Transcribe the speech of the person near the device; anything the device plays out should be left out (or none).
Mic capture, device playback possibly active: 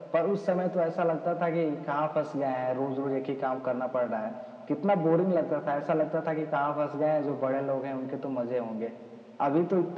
none